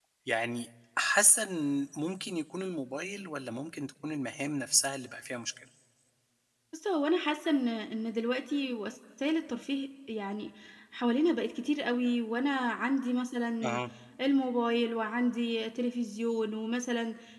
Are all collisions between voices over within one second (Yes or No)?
Yes